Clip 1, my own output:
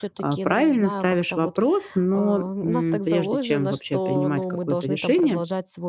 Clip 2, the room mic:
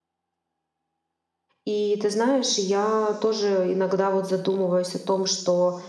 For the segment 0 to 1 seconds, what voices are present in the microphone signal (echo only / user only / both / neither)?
neither